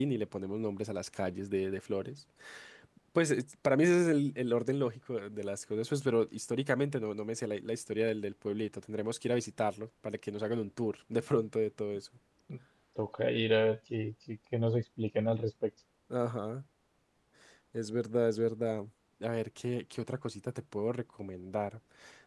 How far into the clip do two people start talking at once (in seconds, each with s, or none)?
none